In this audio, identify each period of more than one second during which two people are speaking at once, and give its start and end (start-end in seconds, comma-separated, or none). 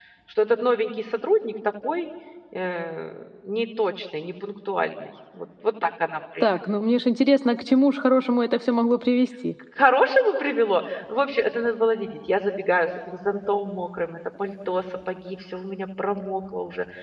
none